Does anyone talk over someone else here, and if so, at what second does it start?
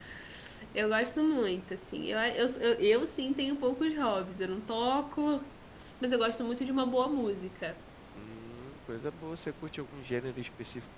none

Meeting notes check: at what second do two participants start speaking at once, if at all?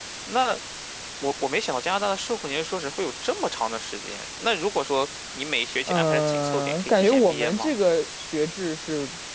5.9 s

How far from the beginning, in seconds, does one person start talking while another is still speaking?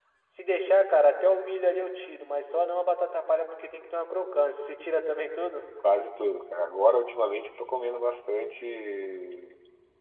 none

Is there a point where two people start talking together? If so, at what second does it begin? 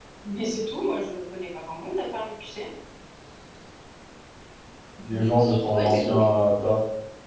5.0 s

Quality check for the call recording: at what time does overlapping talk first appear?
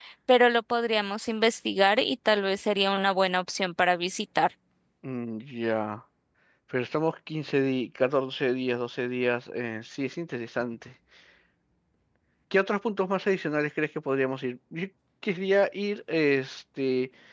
none

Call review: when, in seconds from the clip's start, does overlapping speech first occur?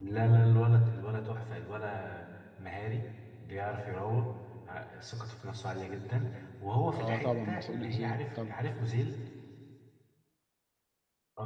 6.9 s

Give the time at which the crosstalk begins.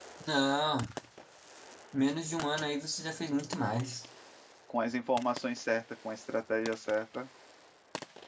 none

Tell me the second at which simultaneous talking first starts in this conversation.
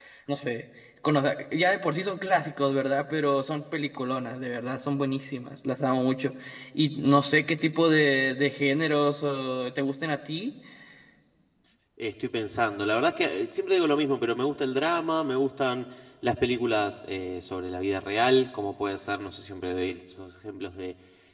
none

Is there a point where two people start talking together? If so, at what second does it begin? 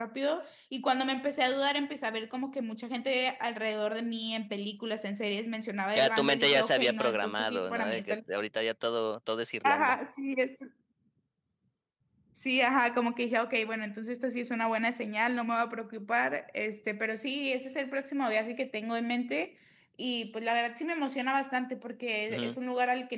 6.0 s

